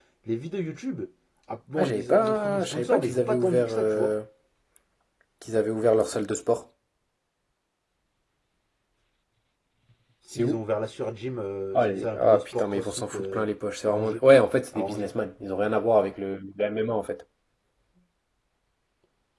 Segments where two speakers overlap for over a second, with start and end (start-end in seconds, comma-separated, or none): 1.8-4.1, 11.7-13.4